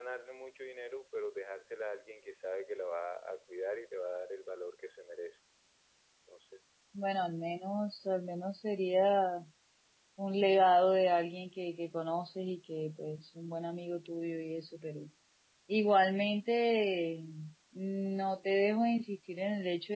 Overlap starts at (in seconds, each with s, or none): none